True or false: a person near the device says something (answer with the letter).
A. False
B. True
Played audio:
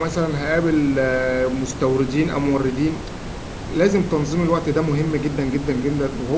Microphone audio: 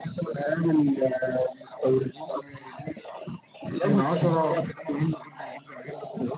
B